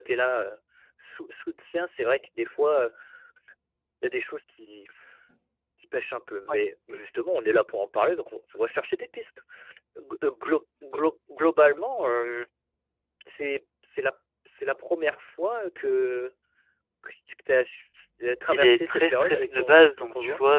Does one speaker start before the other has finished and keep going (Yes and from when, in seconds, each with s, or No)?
Yes, from 18.5 s